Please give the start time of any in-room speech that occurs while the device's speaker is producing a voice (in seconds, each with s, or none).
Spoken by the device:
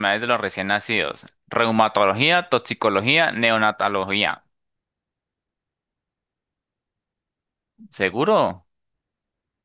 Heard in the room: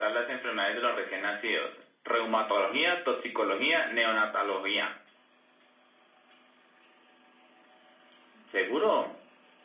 none